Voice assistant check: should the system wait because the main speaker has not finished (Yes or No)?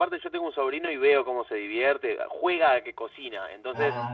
Yes